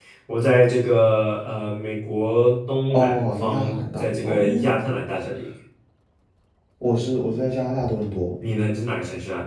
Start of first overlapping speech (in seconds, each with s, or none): 2.9 s